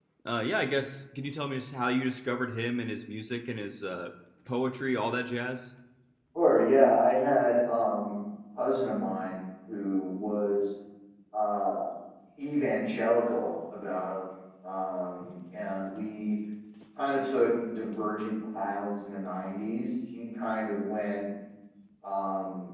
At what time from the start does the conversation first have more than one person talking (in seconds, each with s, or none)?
none